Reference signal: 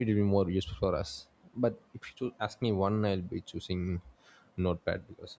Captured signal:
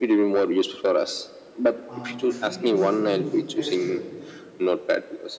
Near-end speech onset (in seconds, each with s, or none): 1.9 s